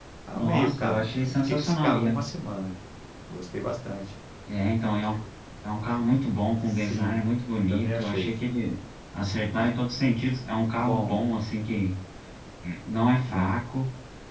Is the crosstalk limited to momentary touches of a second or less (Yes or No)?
No